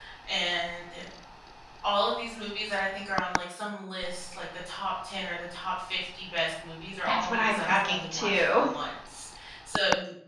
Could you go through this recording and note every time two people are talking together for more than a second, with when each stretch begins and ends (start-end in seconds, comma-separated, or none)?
7.0-8.4